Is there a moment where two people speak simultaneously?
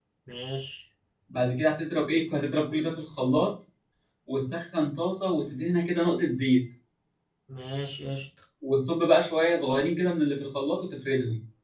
No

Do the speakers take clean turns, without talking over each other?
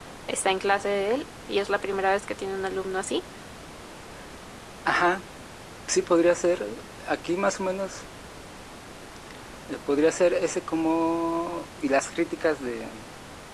Yes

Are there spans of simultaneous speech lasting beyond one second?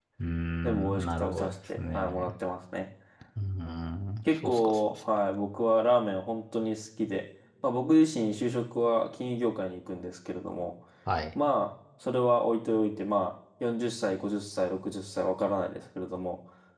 Yes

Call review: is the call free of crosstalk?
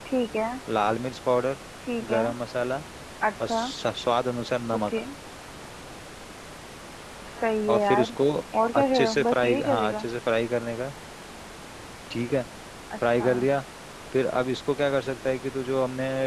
No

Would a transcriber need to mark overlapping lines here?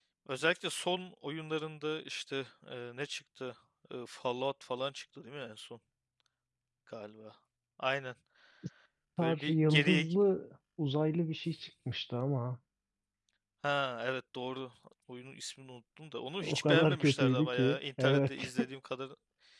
Yes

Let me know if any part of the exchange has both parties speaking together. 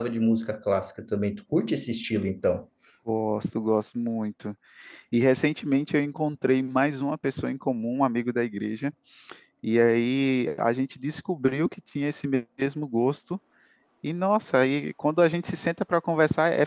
No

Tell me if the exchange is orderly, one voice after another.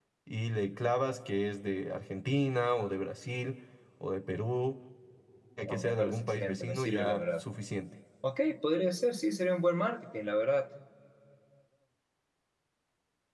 No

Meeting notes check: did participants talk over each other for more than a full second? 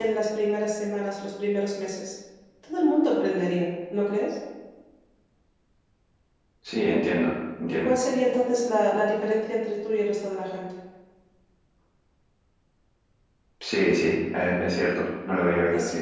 No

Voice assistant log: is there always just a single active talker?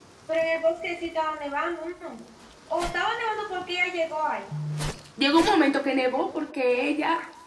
Yes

